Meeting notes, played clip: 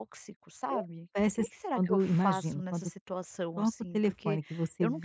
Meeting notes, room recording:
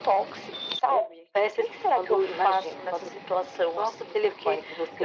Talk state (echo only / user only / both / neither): echo only